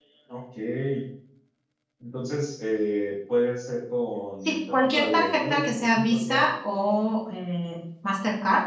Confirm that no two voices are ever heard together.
No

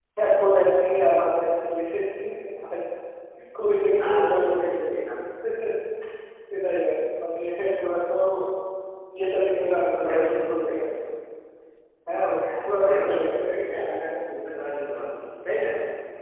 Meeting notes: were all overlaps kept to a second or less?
No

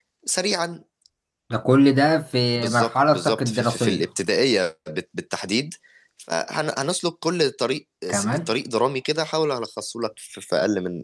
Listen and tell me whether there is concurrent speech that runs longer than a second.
Yes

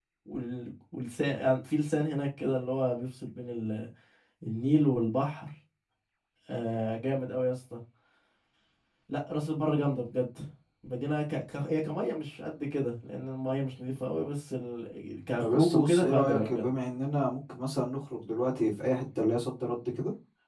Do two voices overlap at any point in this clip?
Yes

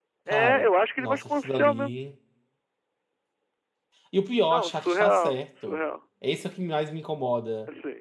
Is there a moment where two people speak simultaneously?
Yes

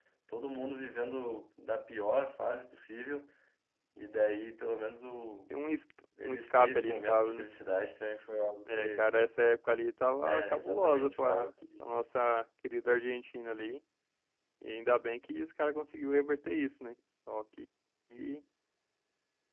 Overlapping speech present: Yes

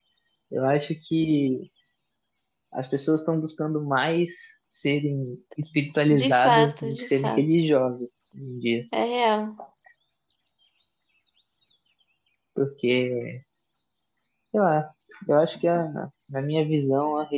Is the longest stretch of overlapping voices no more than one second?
No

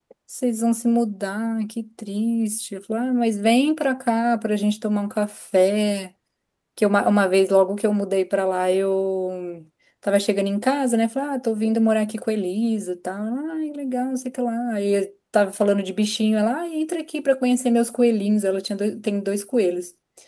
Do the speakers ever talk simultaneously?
No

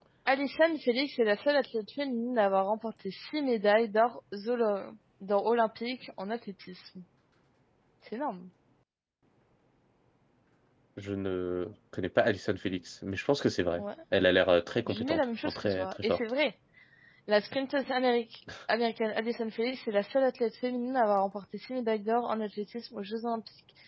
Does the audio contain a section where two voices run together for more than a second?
Yes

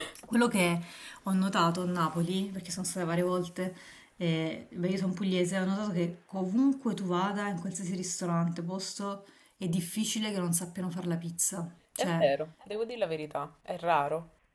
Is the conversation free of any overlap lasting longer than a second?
Yes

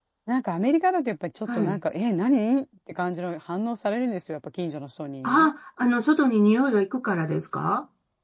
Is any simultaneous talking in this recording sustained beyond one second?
No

